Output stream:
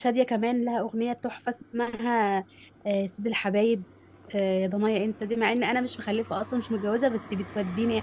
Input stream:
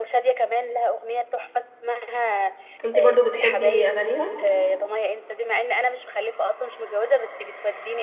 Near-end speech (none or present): present